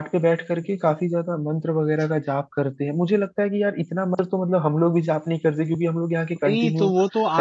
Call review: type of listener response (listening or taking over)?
taking over